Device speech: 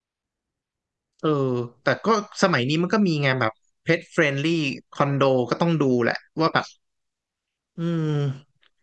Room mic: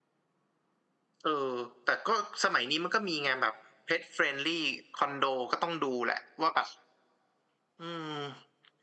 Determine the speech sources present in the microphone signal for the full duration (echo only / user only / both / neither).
echo only